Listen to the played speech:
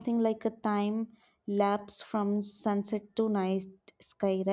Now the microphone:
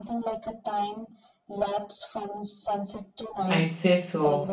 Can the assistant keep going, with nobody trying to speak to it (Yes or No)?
No